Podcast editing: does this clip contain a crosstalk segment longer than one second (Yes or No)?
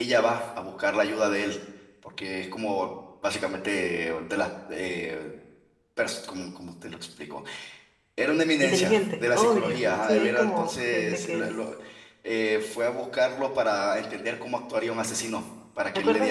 Yes